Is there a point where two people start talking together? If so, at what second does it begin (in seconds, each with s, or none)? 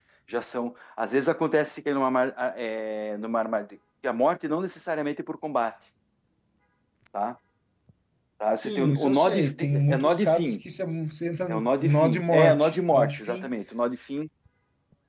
8.6 s